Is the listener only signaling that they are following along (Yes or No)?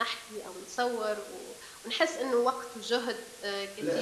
No